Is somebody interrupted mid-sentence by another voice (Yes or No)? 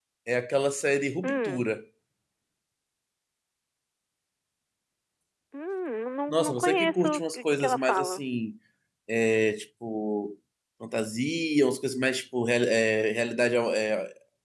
Yes